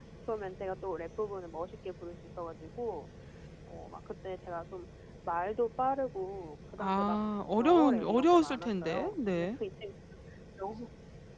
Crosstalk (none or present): present